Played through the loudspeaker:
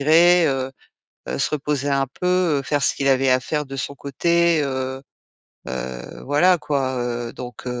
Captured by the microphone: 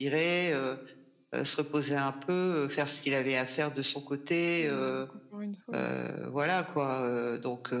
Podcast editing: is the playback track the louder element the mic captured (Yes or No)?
Yes